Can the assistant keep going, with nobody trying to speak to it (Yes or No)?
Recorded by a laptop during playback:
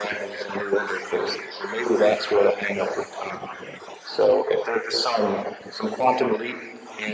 Yes